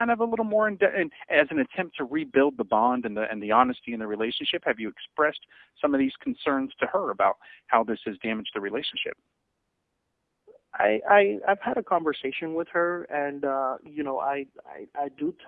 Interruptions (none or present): none